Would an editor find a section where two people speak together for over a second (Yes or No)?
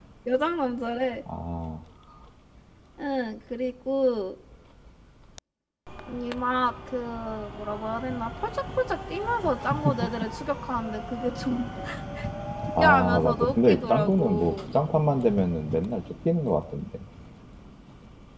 Yes